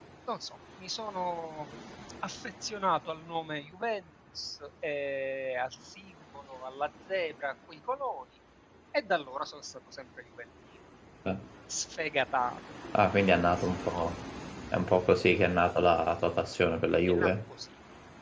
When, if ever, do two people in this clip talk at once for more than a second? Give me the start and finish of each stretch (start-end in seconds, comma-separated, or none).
none